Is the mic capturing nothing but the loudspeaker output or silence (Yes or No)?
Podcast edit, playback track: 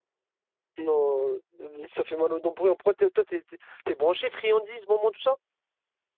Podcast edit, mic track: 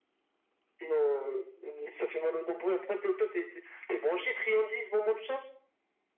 Yes